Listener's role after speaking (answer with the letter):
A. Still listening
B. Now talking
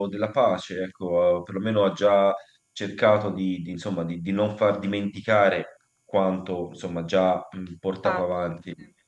A